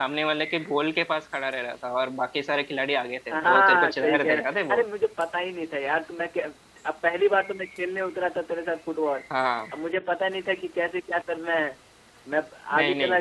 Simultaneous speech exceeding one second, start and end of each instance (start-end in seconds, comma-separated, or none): 3.3-4.8